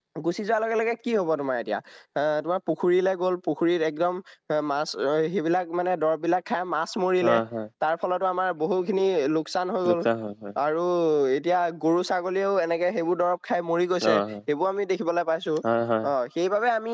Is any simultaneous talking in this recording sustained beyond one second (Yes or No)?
No